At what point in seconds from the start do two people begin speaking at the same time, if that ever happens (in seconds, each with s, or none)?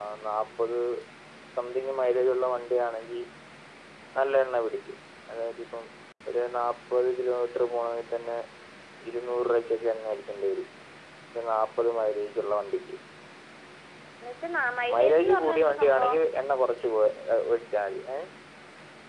14.9 s